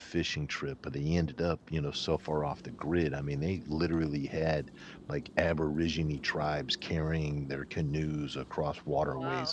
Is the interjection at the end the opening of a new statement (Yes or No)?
No